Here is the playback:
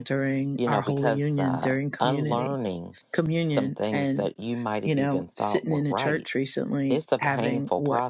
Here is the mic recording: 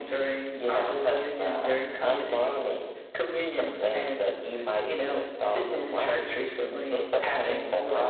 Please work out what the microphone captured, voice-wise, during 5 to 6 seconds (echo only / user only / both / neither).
echo only